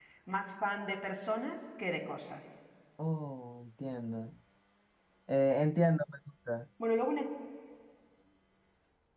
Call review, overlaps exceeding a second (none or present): none